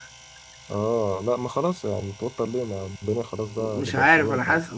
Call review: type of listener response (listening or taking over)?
taking over